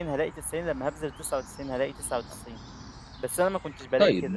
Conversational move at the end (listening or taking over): taking over